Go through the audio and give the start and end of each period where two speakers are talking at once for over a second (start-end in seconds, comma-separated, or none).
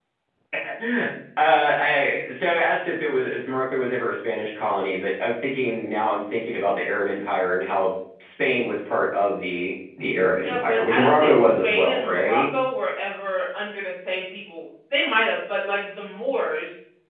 10.4-12.4